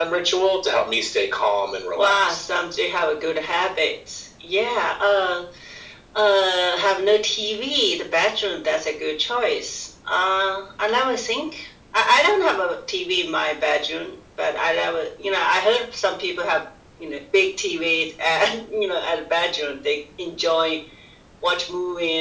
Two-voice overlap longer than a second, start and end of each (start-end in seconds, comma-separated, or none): none